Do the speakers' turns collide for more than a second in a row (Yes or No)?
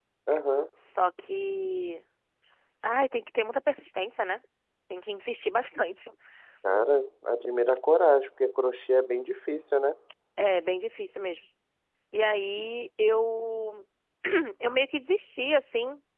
No